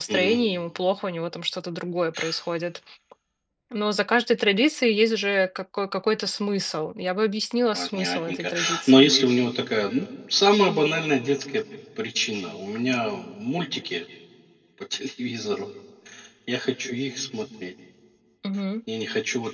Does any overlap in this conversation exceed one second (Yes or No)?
Yes